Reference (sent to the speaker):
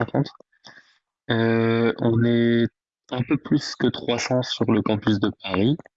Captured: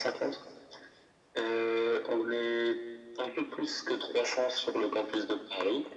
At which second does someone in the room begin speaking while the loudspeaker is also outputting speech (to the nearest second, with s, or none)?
none